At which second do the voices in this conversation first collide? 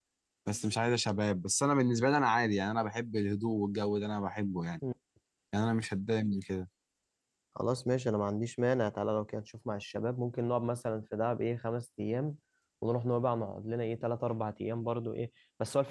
none

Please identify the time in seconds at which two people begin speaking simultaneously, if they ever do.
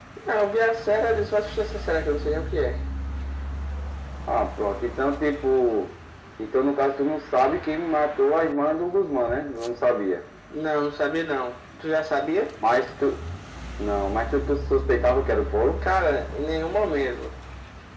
none

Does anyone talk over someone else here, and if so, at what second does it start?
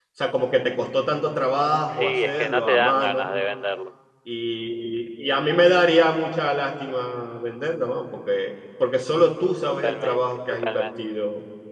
1.9 s

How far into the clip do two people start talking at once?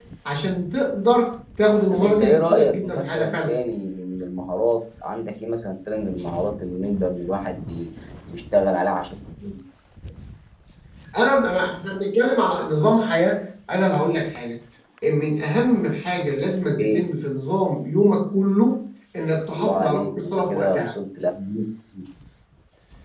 1.9 s

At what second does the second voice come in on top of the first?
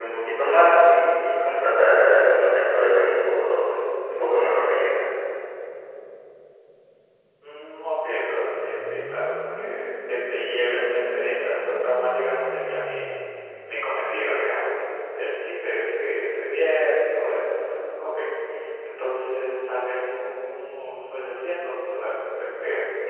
none

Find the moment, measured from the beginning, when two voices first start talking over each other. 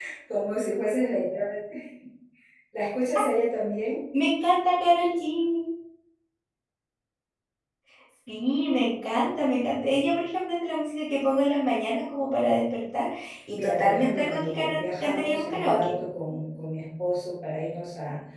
13.6 s

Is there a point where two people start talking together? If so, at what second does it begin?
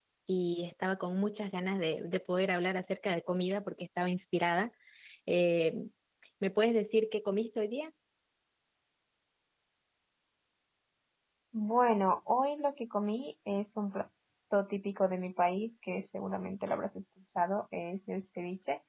none

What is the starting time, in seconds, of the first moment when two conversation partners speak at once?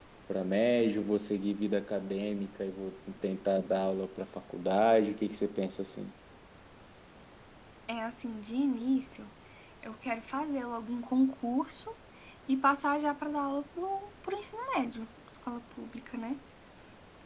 none

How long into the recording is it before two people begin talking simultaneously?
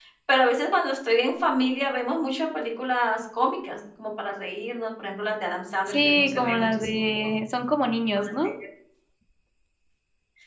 5.9 s

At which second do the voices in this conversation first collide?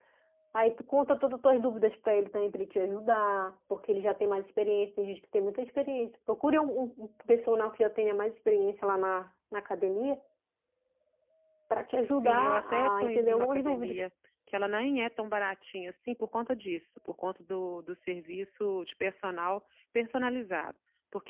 12.1 s

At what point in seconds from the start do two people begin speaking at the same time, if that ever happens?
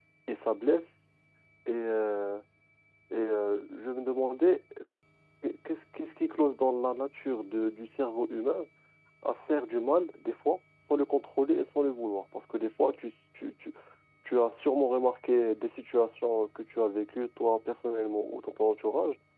none

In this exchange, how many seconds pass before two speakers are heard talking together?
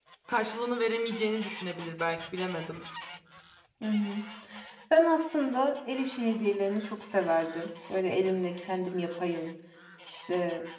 none

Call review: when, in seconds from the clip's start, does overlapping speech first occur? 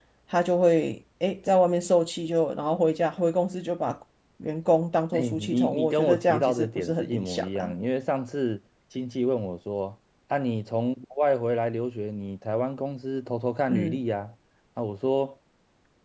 5.1 s

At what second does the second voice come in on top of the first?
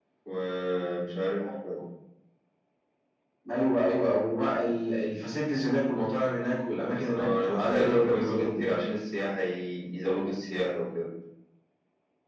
7.1 s

